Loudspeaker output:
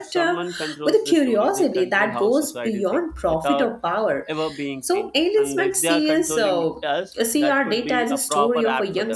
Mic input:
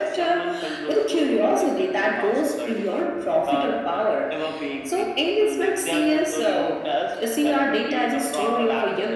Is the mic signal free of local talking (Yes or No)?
Yes